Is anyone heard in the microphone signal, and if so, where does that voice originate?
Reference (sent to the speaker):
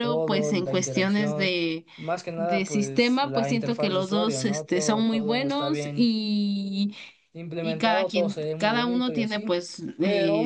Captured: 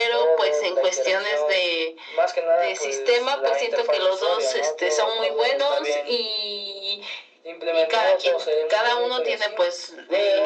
echo only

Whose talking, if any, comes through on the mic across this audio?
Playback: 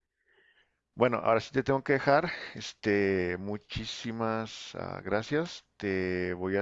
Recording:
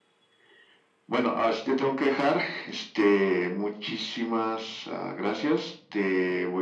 echo only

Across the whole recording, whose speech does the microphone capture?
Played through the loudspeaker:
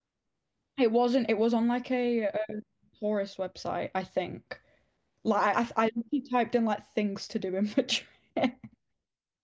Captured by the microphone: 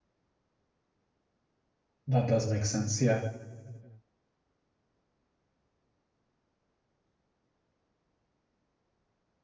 user only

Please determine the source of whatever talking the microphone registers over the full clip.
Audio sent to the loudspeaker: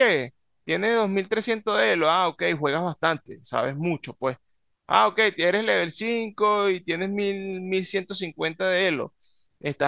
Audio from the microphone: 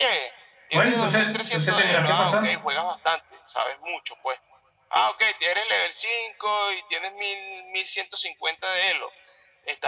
both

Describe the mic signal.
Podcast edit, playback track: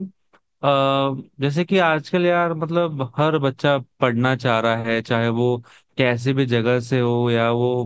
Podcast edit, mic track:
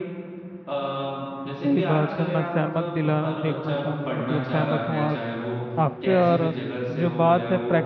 both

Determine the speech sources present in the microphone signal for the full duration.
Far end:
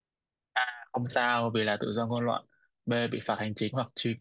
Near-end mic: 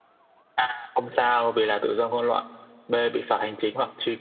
echo only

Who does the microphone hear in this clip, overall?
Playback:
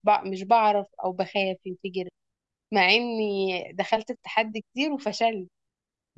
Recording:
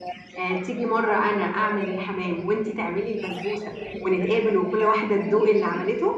both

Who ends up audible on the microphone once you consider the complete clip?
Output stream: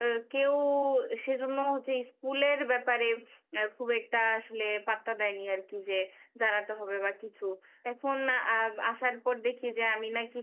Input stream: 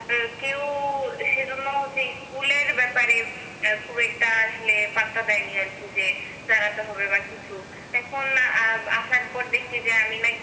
echo only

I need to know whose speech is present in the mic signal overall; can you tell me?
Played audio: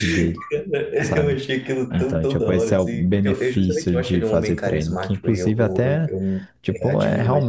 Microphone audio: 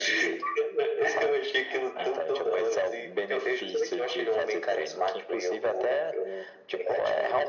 echo only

